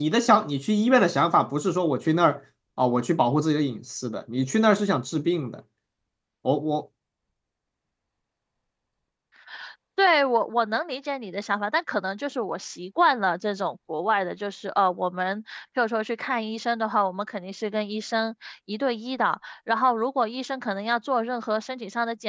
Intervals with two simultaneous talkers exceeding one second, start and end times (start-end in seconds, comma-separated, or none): none